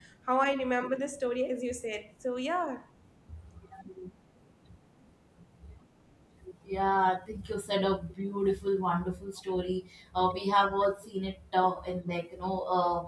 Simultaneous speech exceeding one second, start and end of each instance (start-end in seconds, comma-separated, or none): none